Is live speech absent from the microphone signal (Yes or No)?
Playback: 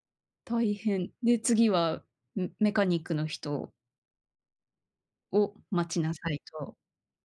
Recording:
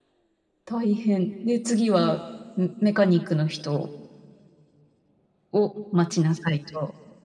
Yes